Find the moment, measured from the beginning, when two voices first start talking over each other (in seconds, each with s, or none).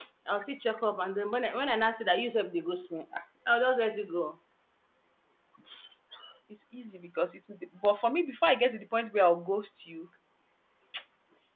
none